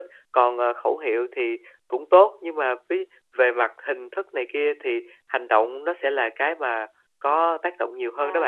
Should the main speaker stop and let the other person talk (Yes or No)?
Yes